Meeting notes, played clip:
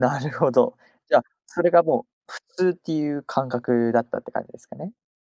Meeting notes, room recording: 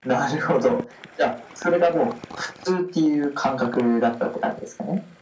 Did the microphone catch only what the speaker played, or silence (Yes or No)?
Yes